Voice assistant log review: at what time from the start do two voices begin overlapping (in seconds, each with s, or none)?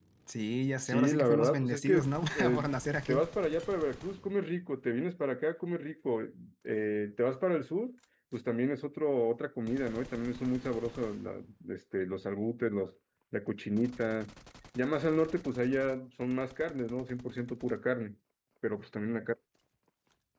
0.8 s